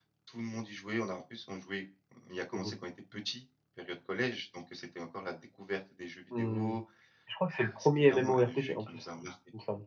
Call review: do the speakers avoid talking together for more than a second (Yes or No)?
No